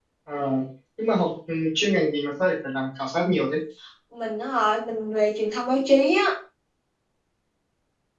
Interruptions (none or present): none